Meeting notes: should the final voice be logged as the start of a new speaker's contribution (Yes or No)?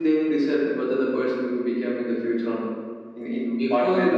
Yes